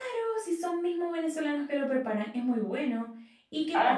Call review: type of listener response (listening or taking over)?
taking over